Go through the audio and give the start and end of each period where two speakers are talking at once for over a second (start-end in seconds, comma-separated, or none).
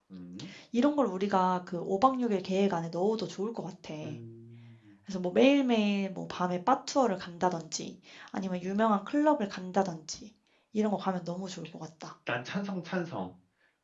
none